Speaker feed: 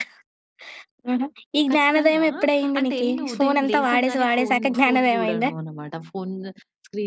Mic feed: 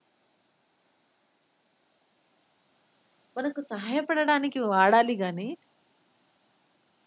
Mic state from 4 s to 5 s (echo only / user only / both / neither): user only